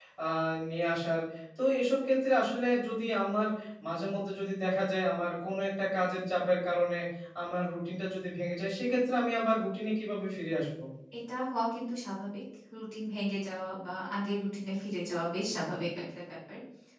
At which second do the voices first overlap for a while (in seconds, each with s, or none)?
none